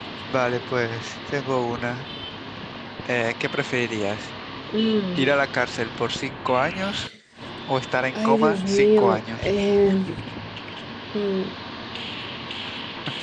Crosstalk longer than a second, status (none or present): present